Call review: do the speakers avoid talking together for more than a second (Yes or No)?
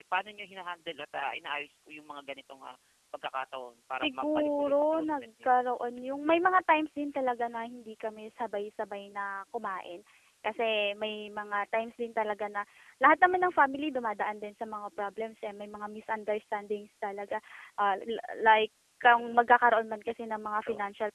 No